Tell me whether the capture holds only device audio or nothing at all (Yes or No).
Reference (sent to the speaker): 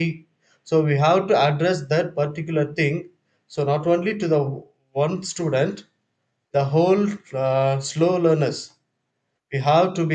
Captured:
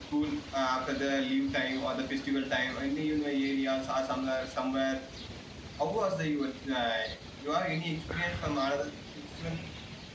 No